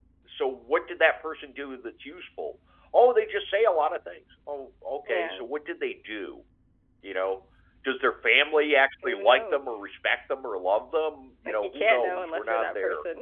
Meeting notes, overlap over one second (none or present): present